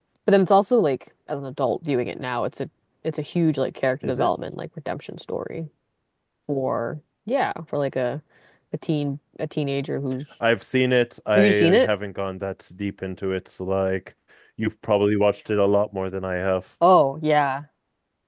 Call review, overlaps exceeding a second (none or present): none